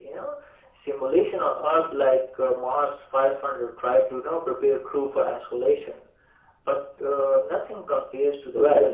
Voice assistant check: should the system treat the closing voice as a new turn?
Yes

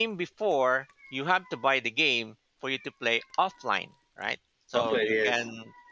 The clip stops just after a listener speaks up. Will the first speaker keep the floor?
Yes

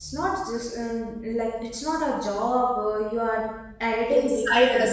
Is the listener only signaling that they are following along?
No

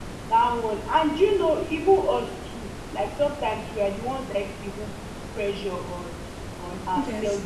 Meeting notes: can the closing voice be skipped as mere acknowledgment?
Yes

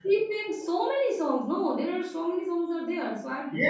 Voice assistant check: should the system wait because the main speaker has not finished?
No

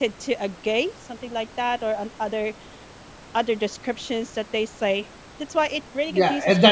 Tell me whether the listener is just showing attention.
No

